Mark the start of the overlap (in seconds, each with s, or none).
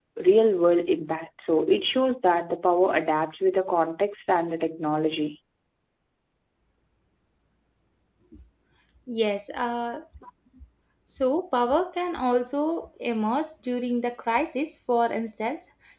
none